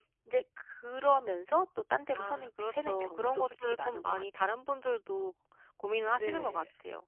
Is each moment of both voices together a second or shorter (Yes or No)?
No